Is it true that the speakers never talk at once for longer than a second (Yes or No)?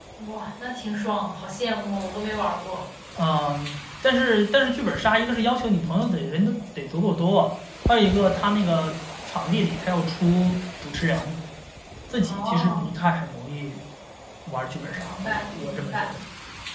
No